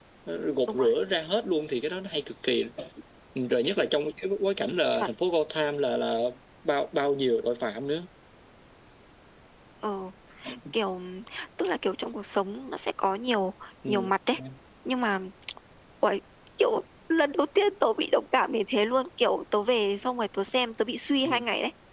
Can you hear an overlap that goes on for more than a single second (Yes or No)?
No